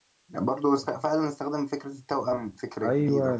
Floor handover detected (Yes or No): Yes